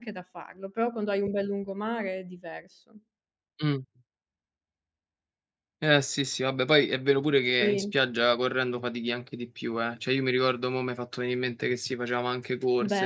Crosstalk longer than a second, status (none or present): none